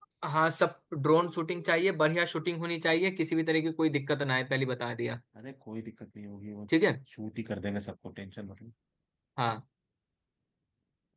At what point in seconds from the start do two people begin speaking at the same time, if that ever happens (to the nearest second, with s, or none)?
none